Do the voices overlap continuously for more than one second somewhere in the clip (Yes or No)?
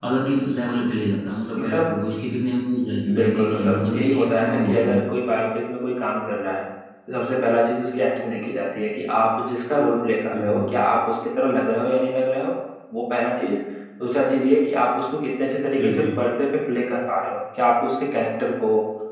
Yes